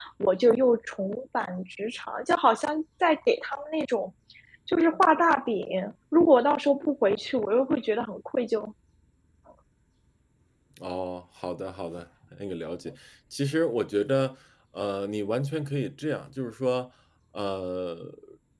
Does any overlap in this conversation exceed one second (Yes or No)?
No